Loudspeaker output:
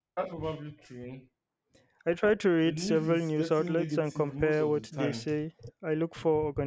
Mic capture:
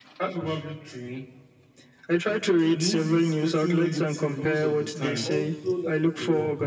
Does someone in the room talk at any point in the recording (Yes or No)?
Yes